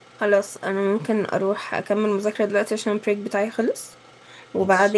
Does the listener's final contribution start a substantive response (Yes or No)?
No